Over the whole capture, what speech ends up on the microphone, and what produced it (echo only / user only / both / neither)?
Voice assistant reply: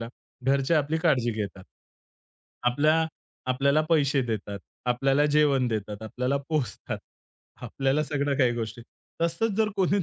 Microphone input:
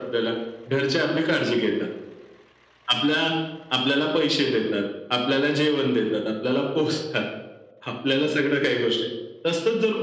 echo only